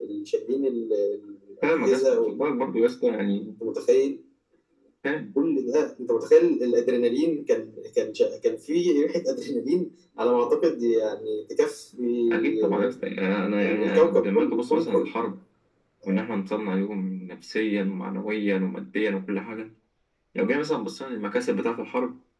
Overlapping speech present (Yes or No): Yes